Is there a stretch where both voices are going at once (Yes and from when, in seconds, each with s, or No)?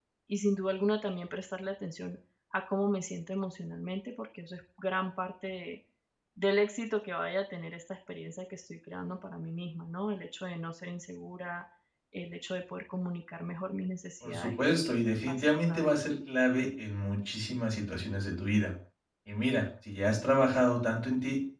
Yes, from 14.2 s